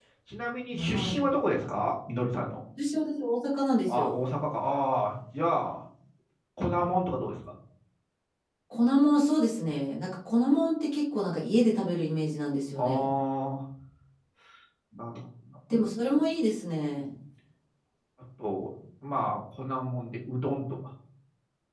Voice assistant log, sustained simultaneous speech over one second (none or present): none